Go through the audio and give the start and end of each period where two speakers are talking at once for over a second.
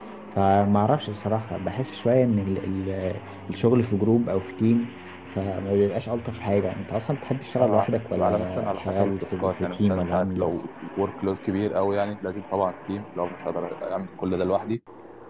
7.6-10.5

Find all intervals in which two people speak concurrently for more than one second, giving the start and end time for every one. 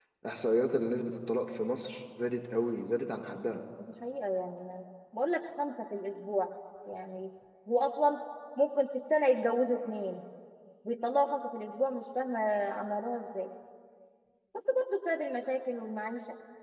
none

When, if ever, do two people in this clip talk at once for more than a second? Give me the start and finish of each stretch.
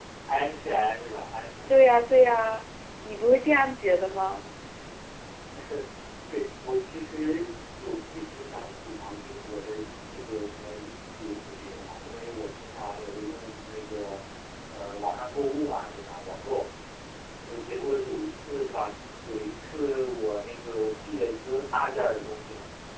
none

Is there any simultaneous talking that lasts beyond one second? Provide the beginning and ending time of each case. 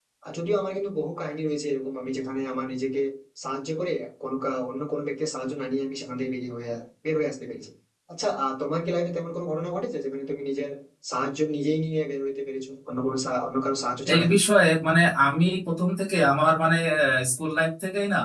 none

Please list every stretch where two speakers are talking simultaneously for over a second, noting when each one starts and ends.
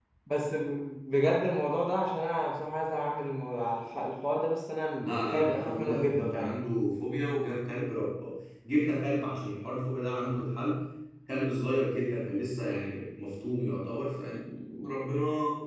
5.0-6.5

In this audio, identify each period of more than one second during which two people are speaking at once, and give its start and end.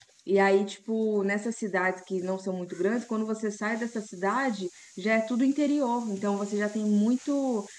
none

